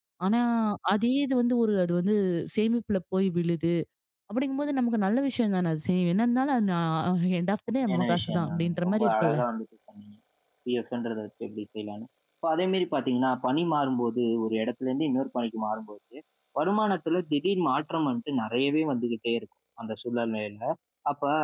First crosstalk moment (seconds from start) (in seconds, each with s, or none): 7.9 s